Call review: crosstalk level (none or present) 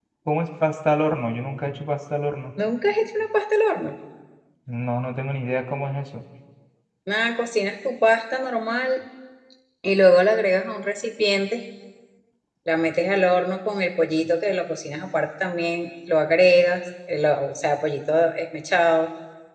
none